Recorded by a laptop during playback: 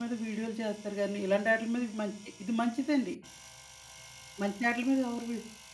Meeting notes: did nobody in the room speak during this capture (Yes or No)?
No